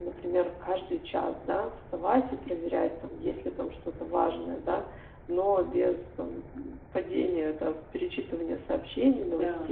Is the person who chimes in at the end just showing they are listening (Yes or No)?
Yes